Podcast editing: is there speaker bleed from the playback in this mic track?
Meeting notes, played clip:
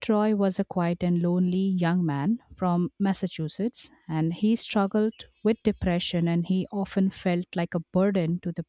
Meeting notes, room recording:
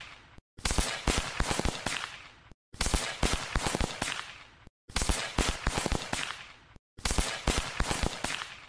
No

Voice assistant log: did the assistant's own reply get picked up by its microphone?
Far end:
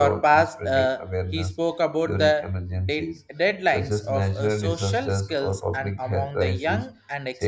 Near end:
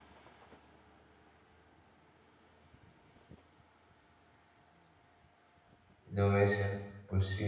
No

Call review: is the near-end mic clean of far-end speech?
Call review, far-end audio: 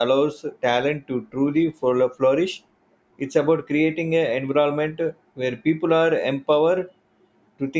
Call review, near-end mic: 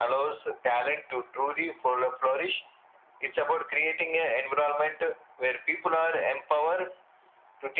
No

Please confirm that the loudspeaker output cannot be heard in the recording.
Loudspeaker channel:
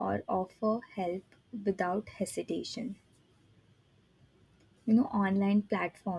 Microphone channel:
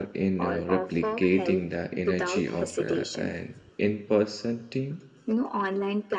No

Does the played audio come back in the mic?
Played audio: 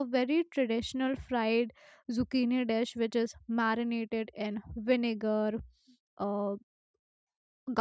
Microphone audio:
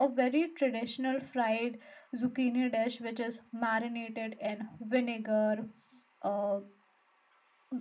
Yes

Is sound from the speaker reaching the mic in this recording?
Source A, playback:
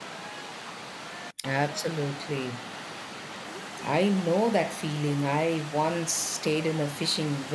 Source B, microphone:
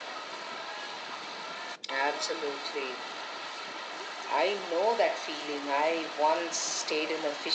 Yes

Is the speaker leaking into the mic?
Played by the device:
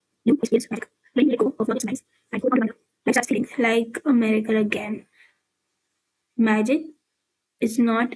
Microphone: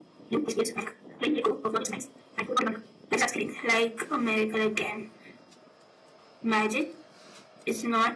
Yes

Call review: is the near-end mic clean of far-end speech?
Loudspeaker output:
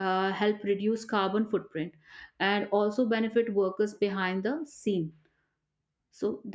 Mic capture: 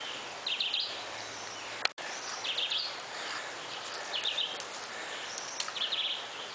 Yes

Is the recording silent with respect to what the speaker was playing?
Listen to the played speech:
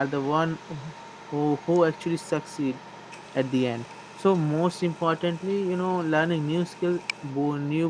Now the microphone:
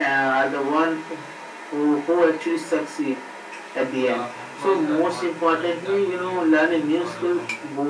No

